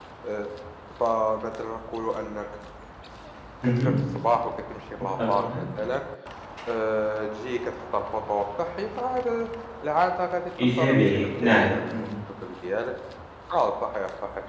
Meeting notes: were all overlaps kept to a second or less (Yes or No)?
No